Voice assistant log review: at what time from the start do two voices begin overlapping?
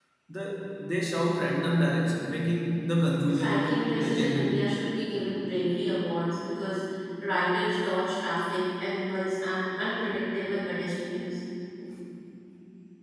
3.3 s

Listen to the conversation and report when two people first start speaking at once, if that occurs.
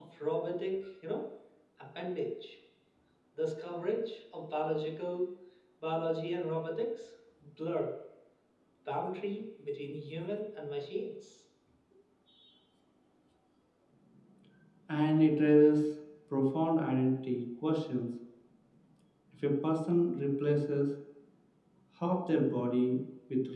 none

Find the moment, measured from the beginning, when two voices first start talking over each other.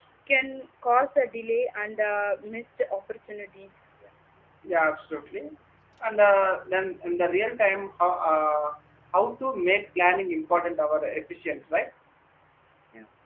none

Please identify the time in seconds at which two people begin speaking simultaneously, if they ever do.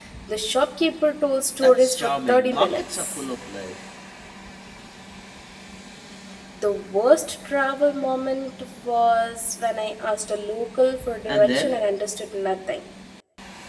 1.6 s

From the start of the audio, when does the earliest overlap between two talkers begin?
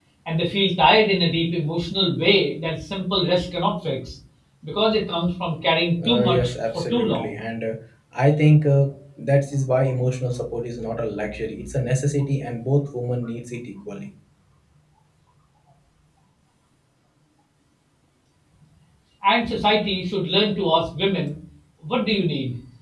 6.0 s

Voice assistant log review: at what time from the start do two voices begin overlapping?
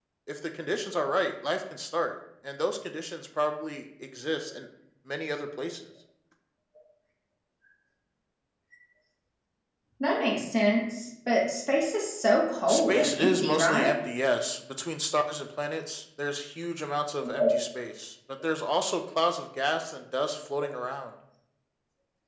12.7 s

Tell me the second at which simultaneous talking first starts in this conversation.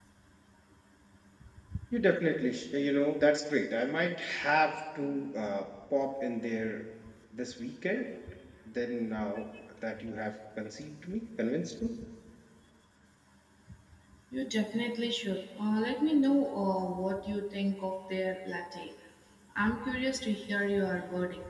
none

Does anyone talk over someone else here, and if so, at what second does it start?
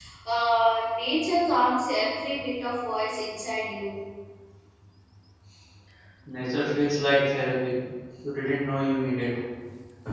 none

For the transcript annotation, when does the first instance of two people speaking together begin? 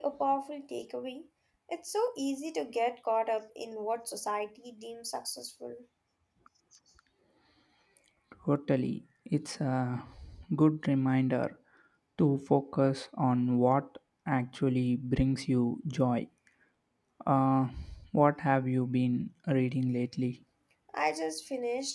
none

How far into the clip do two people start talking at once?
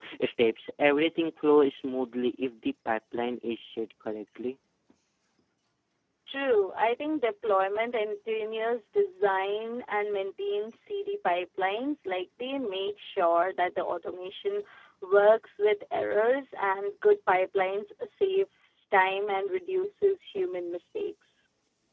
none

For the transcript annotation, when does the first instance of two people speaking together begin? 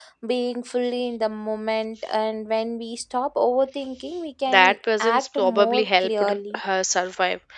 4.5 s

